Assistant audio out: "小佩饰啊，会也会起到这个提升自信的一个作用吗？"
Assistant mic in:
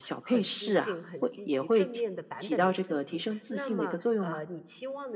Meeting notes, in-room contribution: present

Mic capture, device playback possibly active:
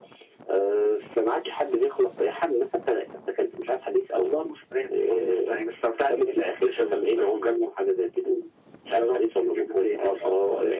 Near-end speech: none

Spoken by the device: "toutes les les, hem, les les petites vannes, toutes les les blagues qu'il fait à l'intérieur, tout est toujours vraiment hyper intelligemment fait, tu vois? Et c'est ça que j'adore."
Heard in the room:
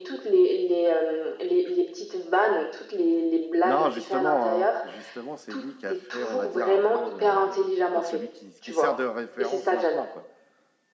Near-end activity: present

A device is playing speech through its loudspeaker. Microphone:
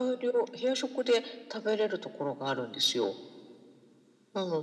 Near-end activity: none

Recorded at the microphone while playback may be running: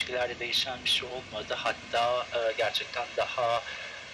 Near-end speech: none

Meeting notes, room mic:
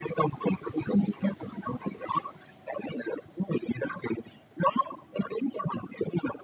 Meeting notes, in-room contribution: none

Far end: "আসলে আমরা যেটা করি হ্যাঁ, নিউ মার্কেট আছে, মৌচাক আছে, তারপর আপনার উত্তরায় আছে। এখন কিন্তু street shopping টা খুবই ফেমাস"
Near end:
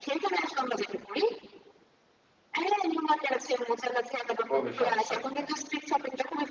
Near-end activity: present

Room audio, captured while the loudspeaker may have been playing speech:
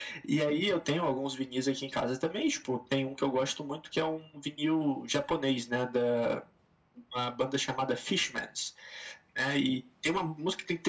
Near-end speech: none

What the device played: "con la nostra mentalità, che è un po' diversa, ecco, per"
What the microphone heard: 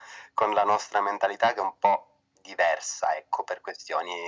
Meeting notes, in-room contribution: none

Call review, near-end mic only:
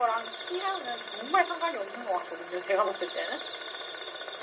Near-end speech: none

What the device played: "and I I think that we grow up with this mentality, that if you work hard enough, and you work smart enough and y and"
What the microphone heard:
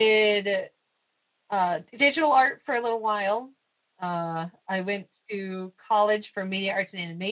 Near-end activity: present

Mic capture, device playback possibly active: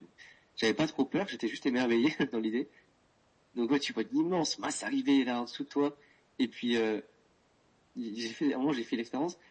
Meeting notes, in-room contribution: none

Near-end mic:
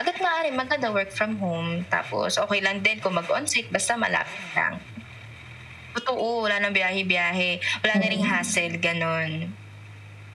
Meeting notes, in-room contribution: present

